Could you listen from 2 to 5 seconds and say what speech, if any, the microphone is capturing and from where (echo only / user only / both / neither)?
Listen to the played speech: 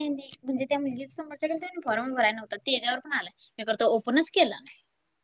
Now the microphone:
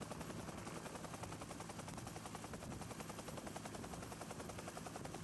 neither